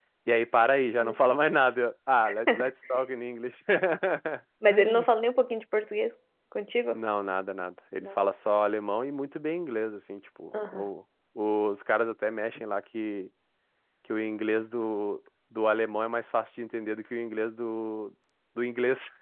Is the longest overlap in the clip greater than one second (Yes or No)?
No